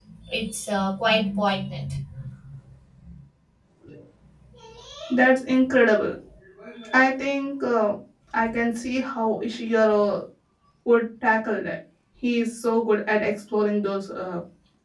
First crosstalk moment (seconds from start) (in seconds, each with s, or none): none